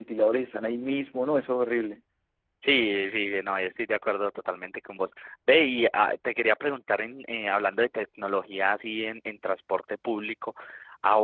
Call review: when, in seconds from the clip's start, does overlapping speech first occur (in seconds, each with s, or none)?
none